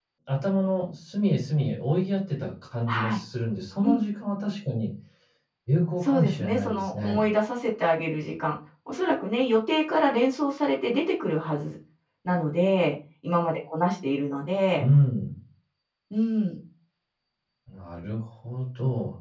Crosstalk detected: Yes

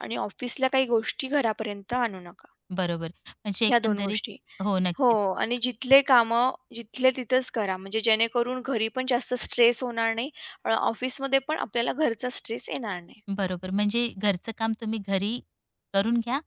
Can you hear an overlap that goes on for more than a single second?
No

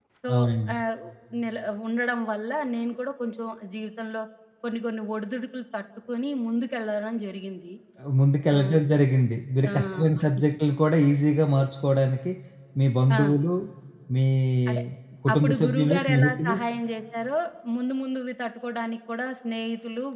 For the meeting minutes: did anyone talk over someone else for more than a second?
Yes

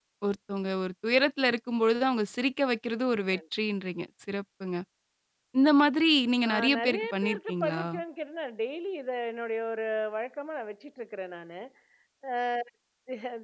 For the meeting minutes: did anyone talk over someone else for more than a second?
Yes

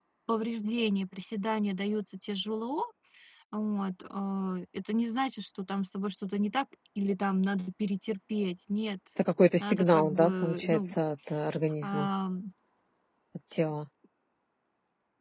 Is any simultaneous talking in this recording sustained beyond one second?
Yes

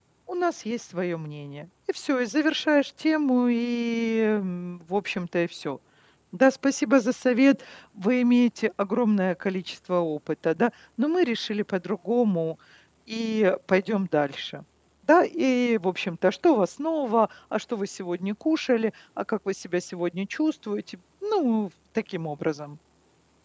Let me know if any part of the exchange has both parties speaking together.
No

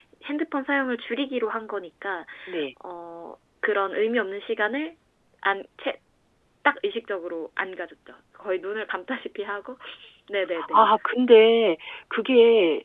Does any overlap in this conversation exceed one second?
No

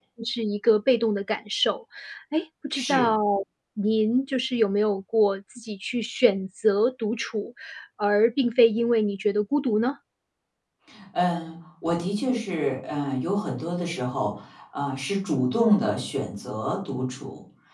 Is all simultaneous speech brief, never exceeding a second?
Yes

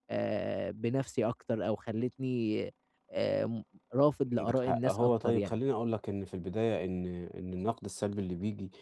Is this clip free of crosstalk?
No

